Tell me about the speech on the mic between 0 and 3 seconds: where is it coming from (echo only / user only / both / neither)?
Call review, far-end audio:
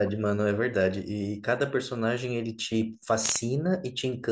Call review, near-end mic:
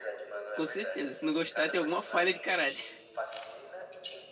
both